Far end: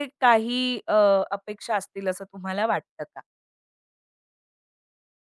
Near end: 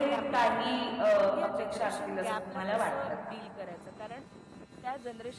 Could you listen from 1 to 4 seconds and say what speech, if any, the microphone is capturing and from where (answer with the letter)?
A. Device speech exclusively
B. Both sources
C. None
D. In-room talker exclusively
B